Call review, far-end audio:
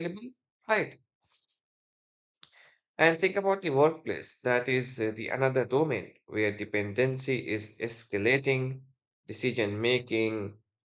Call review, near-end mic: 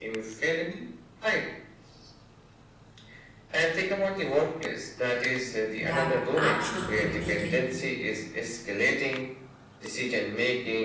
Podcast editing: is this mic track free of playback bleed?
No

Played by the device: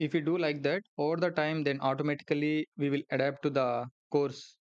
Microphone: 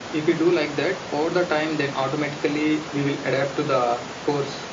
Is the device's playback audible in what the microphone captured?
Yes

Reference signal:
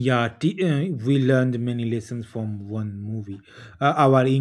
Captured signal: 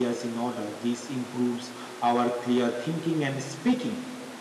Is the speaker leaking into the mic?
No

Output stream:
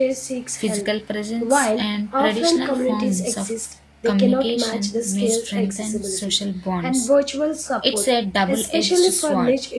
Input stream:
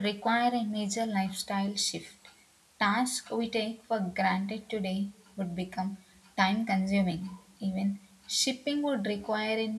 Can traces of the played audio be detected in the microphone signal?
No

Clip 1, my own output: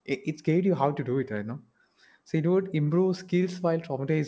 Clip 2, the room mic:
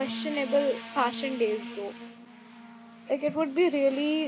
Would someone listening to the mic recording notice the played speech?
No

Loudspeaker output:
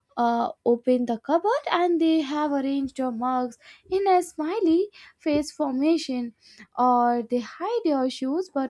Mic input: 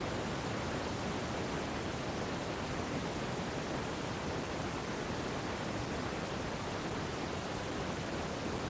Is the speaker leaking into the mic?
No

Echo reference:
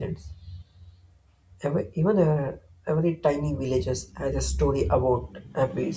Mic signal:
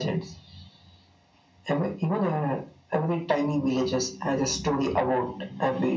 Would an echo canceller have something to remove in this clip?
Yes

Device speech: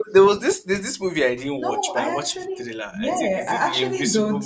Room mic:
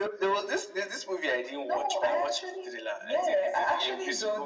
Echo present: Yes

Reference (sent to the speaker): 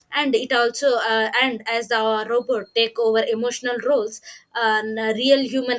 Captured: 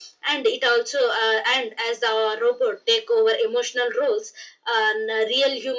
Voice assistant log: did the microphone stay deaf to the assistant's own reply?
No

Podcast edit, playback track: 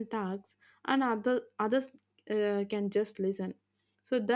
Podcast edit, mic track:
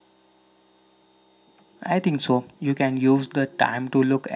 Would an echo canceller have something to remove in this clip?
No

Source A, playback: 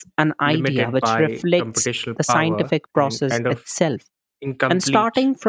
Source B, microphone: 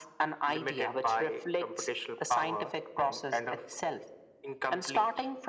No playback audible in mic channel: No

